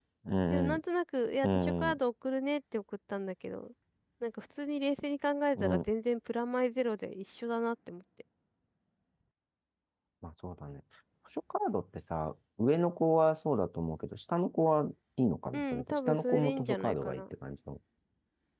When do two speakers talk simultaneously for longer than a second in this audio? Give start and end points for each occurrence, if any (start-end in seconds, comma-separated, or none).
15.5-17.2